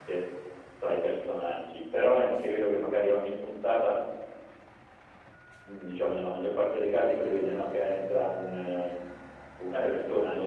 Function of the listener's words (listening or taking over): listening